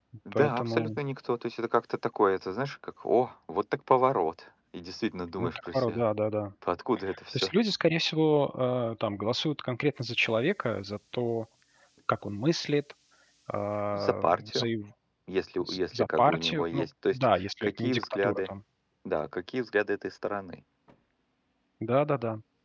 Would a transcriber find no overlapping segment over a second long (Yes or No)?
No